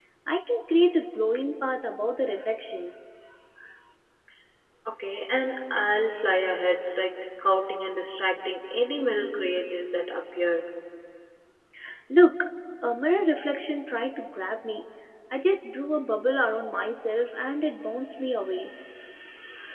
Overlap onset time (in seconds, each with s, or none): none